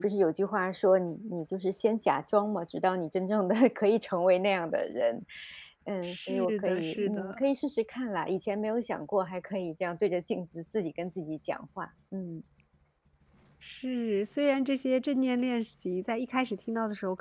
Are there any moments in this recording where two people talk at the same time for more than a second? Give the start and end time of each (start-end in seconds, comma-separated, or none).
6.0-7.4